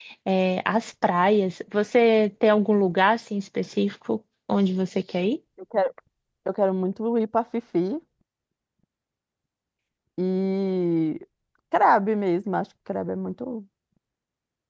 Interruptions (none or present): none